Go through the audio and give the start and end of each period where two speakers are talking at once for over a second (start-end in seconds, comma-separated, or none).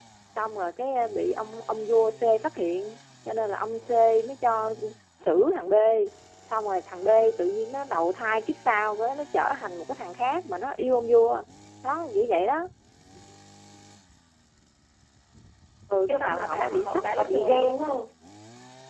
16.1-17.9